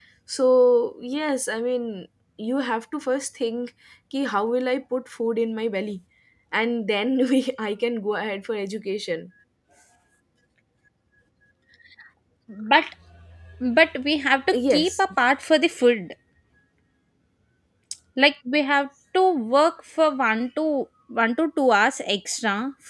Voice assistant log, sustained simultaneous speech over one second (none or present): none